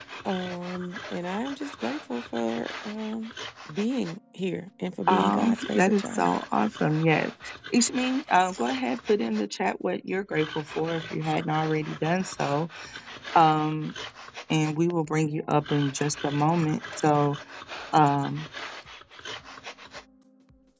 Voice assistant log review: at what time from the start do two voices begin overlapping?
5.1 s

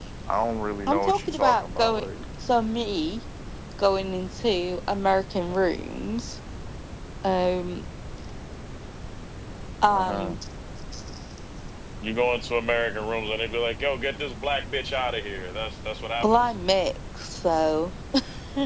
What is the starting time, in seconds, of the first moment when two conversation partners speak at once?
0.9 s

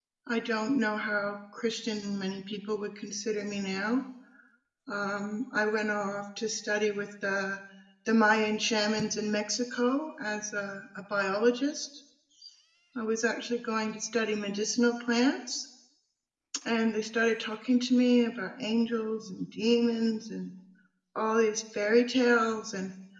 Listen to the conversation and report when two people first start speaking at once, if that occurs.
none

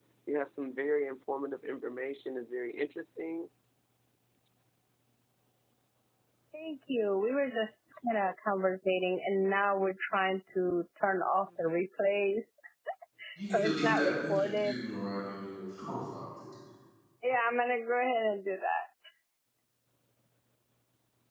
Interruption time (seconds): 13.5 s

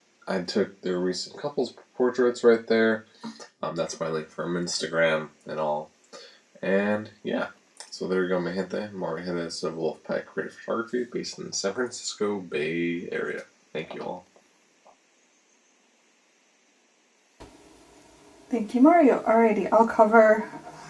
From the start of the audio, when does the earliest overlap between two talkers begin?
none

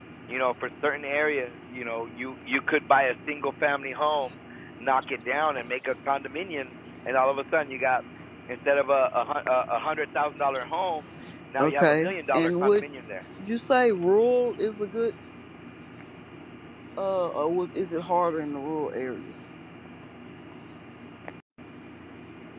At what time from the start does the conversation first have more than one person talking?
11.6 s

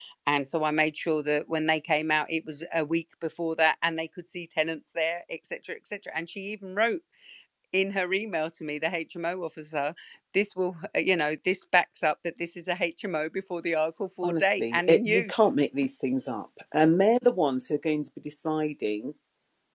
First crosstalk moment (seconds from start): 14.2 s

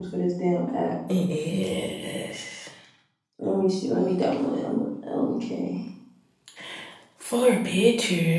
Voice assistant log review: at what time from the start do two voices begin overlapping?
none

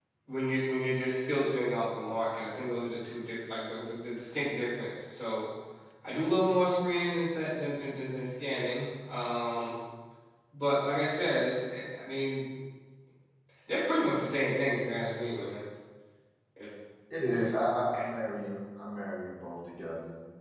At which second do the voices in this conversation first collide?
none

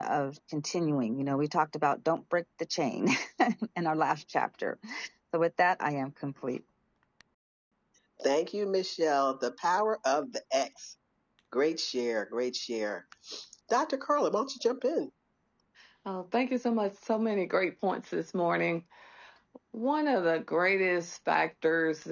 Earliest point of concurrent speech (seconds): none

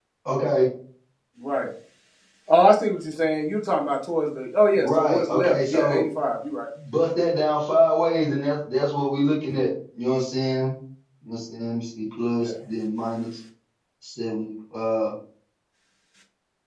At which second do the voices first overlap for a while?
4.8 s

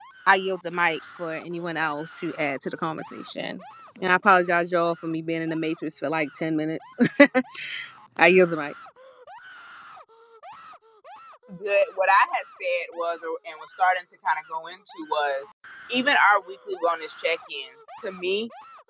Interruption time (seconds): none

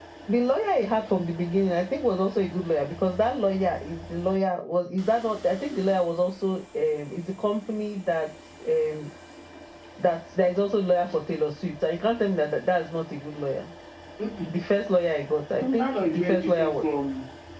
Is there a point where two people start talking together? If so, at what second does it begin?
15.6 s

